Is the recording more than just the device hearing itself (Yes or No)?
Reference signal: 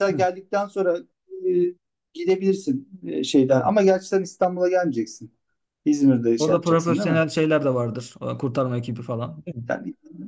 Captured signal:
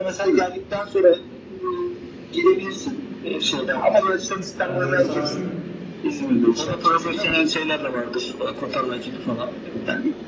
Yes